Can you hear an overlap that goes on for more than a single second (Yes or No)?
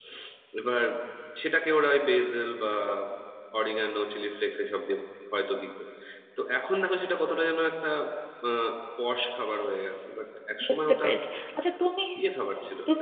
No